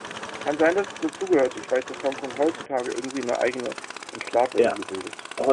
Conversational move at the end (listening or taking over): taking over